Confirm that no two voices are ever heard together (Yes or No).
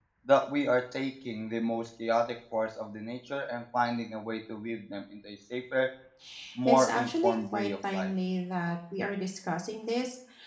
No